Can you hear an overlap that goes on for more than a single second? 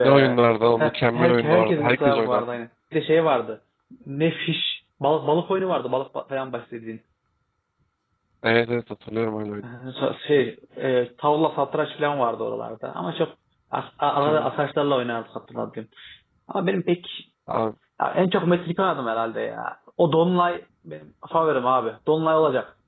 Yes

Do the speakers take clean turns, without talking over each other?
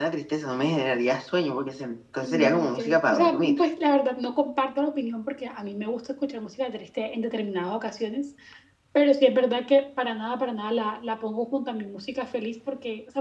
No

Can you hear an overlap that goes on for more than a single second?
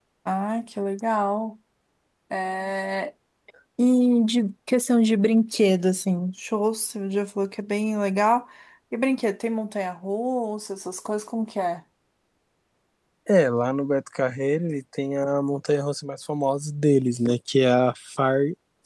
No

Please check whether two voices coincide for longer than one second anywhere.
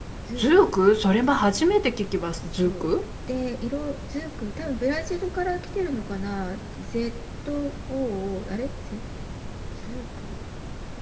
No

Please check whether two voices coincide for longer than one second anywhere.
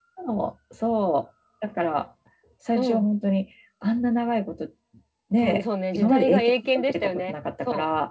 Yes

